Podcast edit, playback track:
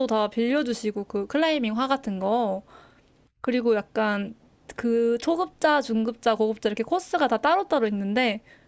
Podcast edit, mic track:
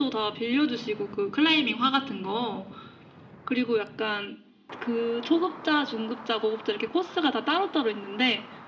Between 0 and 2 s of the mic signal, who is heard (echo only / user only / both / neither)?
echo only